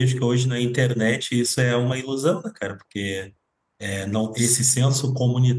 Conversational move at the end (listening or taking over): listening